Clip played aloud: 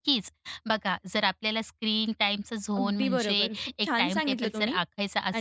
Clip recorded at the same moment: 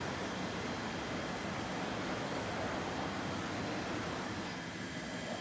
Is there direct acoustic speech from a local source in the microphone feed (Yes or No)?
No